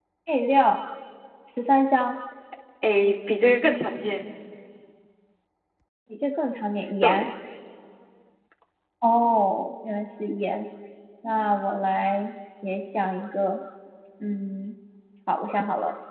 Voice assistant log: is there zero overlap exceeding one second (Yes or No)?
Yes